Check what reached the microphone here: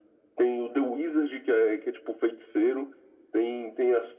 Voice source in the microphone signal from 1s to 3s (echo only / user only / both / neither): echo only